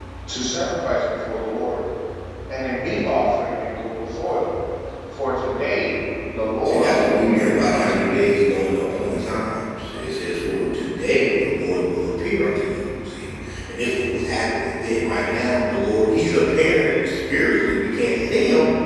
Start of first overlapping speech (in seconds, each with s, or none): 6.6 s